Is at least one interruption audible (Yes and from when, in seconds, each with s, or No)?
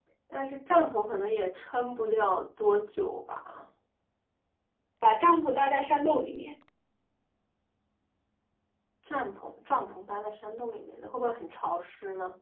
No